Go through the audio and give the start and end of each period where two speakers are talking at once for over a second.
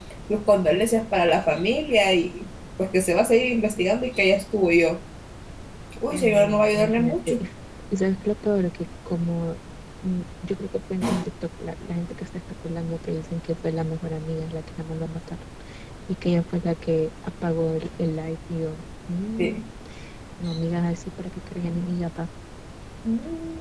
6.1-7.4

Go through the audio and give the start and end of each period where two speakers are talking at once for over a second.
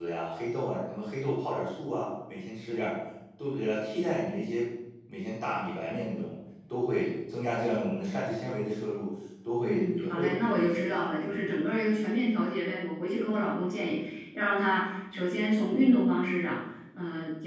9.6-11.5

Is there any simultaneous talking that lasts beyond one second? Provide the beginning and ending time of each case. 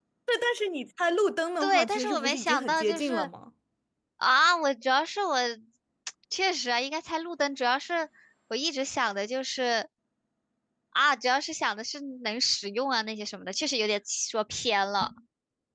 1.6-3.3

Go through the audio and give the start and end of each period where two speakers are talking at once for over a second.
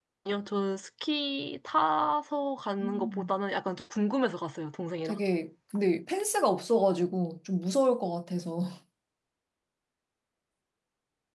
none

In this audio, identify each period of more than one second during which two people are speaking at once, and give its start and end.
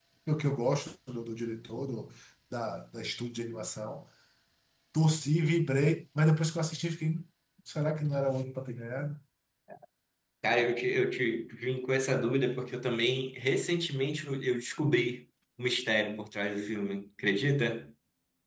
none

